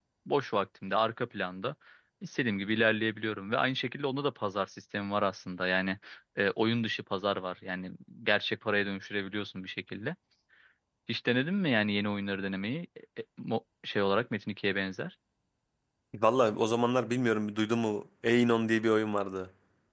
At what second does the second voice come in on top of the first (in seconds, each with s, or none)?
none